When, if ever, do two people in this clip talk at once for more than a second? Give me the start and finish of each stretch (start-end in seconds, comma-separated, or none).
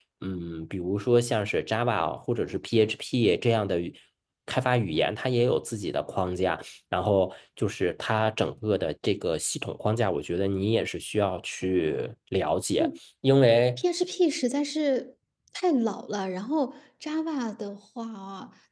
none